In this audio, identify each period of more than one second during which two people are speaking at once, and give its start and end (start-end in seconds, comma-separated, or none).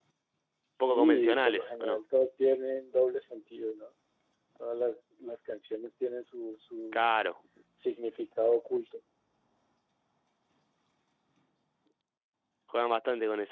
0.8-2.0